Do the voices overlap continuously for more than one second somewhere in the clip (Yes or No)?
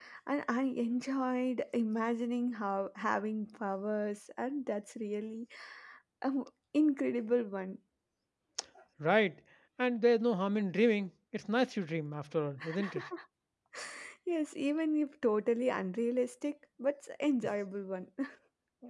No